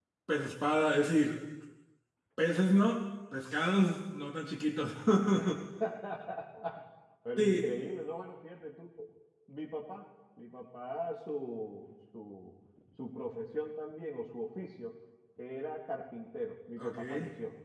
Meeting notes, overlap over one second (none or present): none